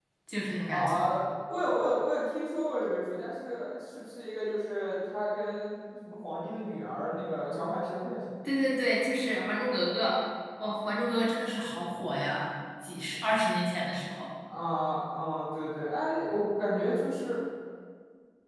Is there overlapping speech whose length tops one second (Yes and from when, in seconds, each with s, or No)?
No